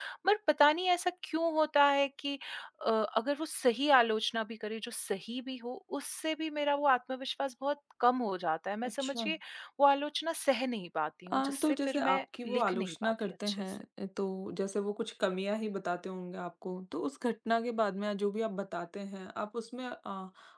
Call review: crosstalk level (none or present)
present